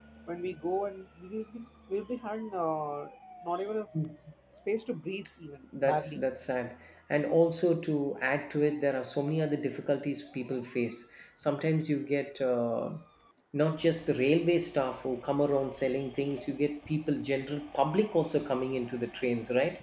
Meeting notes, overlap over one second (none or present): none